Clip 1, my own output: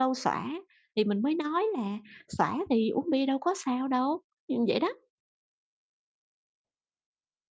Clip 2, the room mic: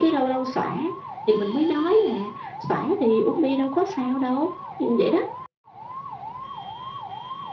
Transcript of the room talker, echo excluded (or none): none